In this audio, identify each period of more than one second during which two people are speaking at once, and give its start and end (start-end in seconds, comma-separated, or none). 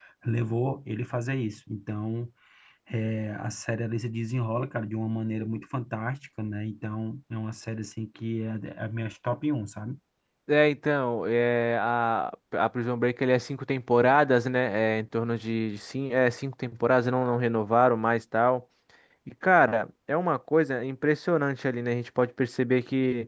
none